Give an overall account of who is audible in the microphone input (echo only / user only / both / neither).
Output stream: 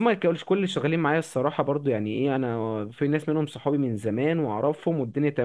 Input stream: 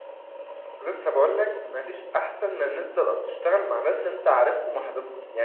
user only